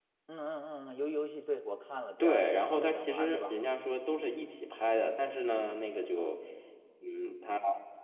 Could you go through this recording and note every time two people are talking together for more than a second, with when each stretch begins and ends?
2.2-3.6

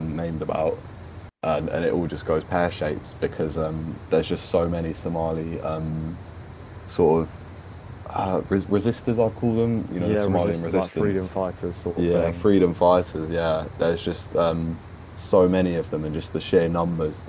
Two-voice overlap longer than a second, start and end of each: 10.0-11.3

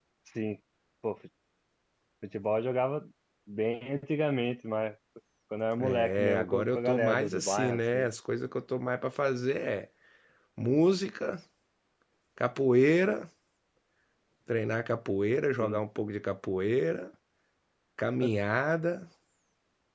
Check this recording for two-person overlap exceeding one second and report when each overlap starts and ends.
5.9-8.1

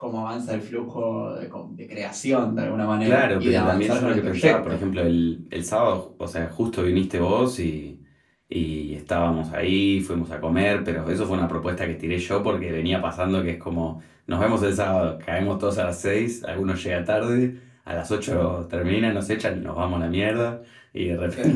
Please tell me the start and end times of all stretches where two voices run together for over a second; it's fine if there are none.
3.0-4.8

